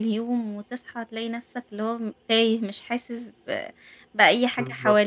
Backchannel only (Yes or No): No